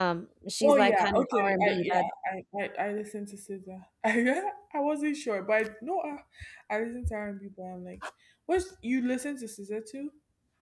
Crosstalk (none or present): present